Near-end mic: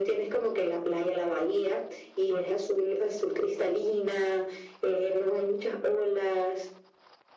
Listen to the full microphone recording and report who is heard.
echo only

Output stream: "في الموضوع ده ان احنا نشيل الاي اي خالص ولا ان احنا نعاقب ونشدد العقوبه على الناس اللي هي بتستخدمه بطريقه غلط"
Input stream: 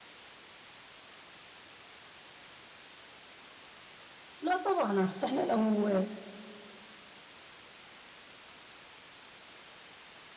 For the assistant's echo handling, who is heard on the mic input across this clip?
user only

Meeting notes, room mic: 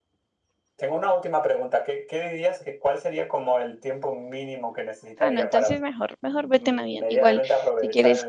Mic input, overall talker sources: both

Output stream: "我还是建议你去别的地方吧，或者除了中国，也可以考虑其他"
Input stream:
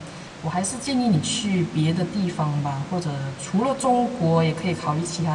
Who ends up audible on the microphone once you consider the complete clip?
echo only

